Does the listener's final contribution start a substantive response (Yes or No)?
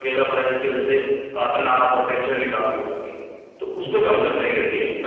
No